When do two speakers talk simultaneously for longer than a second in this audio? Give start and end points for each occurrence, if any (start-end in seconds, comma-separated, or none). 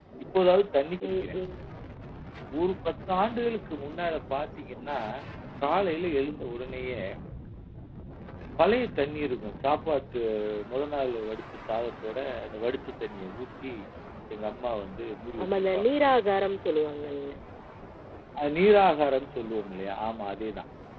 none